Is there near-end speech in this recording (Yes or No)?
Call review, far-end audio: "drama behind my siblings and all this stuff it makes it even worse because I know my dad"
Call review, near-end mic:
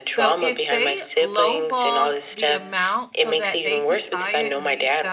Yes